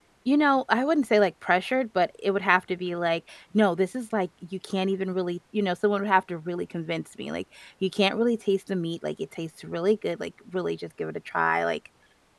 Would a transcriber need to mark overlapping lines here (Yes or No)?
No